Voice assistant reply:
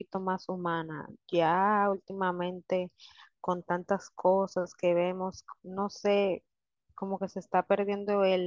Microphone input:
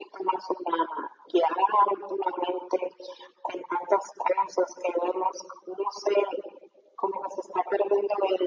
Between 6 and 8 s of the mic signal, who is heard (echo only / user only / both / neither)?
echo only